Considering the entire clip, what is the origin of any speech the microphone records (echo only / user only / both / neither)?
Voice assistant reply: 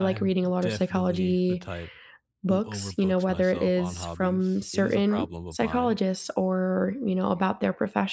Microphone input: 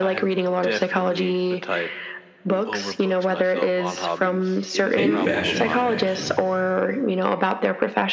both